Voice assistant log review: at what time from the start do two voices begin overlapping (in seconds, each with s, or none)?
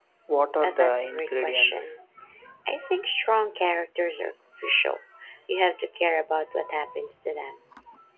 0.6 s